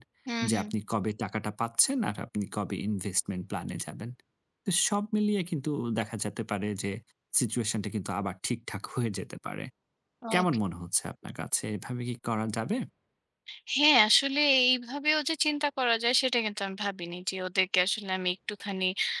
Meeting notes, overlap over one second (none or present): none